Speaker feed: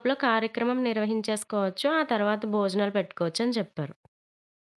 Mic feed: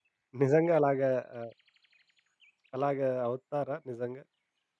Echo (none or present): none